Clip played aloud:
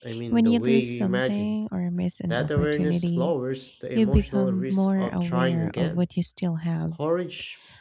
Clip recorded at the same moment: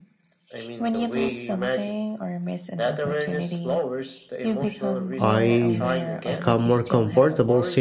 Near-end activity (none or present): present